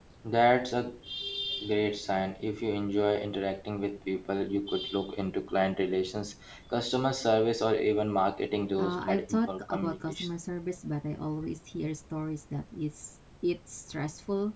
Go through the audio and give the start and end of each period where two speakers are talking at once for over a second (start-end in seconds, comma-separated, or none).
8.8-10.3